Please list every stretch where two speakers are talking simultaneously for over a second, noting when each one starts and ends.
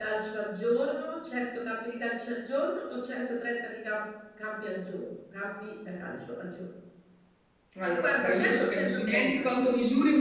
7.9-9.5

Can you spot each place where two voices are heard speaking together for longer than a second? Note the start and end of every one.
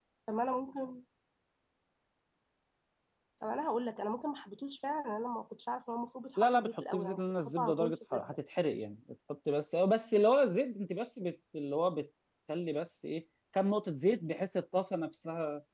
6.4-8.4

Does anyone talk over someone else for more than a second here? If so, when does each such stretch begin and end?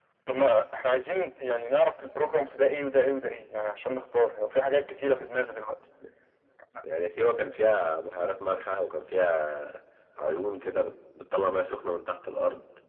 none

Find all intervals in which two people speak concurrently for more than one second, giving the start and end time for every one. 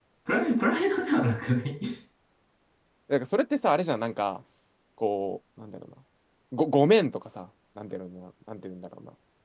none

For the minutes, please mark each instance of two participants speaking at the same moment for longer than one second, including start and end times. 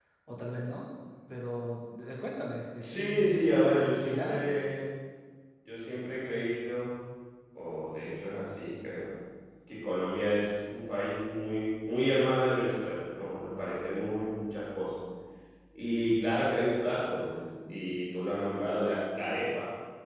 2.8-4.8

